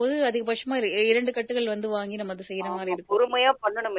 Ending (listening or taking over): taking over